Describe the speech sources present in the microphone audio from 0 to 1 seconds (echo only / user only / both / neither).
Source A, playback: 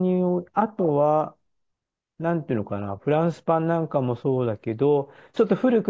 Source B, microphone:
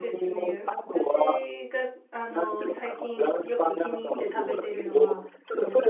both